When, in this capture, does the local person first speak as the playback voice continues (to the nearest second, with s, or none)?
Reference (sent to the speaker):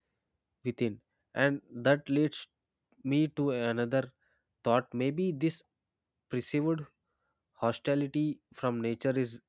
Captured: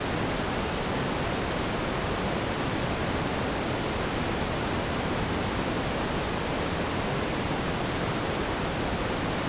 none